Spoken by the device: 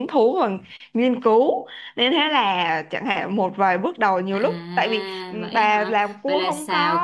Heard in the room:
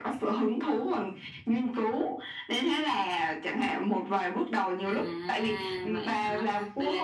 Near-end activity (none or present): none